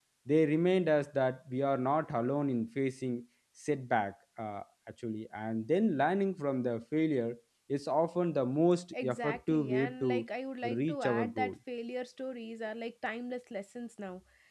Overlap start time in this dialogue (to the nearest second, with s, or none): 9 s